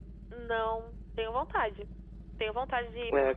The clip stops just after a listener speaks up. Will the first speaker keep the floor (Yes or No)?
No